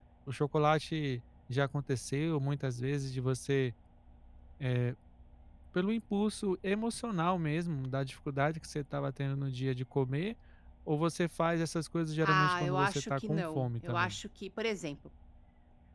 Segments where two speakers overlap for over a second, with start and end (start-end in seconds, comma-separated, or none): 12.2-14.2